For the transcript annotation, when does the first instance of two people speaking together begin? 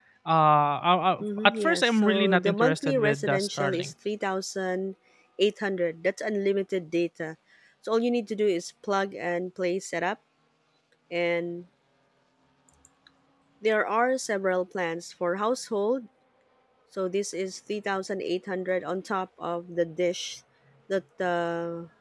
1.2 s

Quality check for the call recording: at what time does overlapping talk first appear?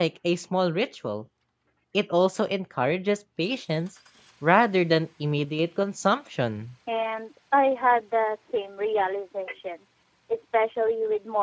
none

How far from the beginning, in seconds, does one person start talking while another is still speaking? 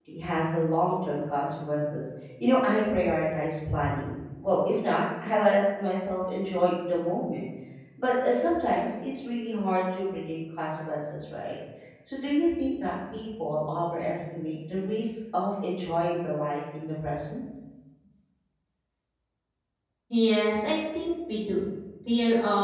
none

